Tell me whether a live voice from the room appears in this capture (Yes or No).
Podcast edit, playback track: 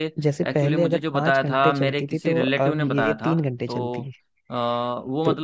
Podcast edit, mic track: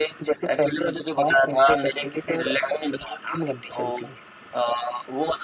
No